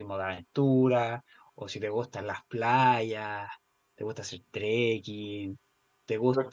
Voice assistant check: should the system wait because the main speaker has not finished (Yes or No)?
No